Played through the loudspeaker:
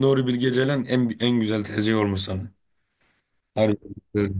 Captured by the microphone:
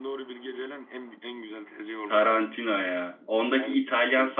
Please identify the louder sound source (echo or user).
user